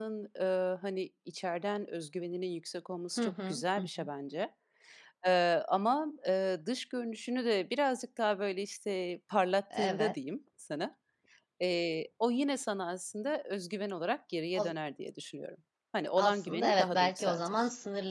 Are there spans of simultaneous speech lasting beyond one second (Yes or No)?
Yes